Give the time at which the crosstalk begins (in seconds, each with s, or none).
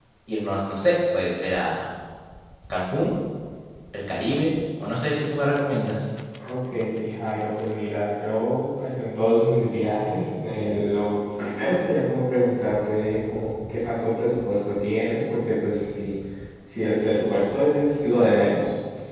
none